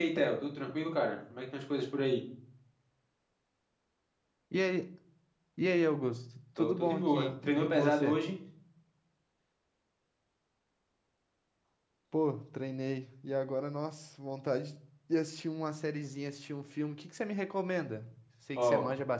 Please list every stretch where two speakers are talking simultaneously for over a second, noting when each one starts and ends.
6.6-8.2

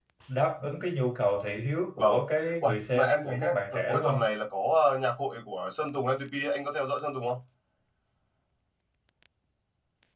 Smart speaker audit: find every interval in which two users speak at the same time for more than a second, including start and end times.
2.6-4.2

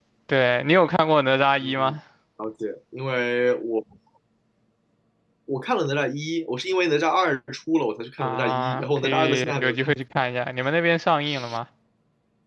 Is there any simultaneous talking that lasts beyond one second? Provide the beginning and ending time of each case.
8.2-9.9

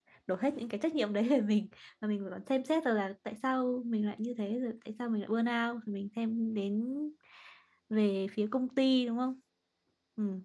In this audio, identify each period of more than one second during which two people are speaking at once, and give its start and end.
none

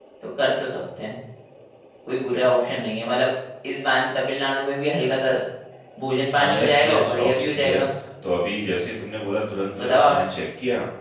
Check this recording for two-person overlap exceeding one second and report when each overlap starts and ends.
6.4-7.8

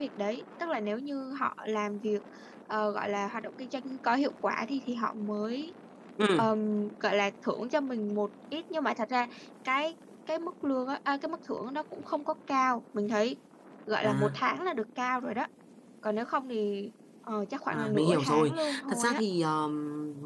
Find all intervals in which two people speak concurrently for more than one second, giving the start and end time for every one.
17.7-19.2

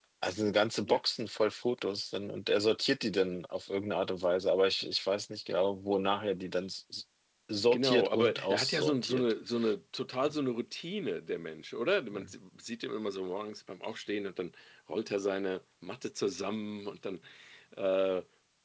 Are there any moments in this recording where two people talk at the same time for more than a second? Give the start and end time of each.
7.7-9.3

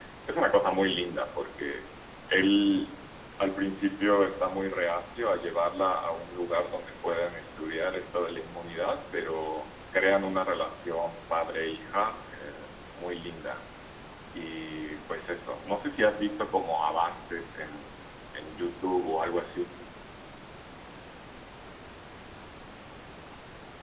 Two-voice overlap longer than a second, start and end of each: none

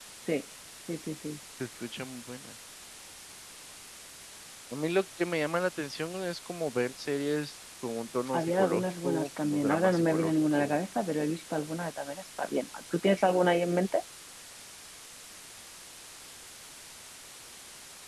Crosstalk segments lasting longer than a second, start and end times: 8.3-10.8

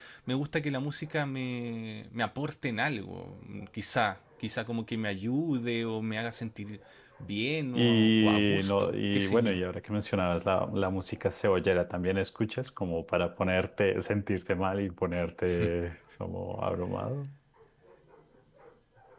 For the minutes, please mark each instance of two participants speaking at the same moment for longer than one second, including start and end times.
7.8-9.6

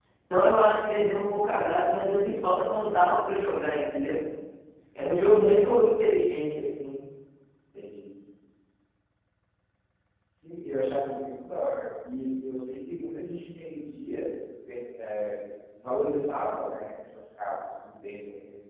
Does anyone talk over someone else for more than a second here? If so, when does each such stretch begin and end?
none

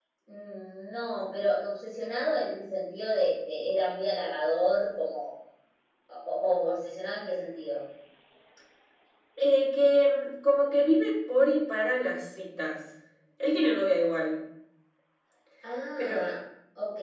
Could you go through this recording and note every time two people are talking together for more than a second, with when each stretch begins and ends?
none

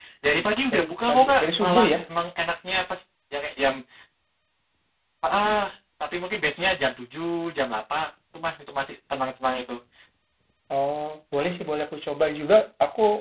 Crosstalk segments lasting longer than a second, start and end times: 0.7-2.0

